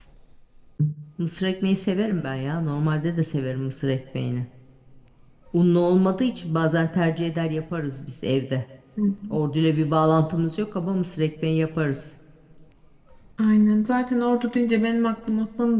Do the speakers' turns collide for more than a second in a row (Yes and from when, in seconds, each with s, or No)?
No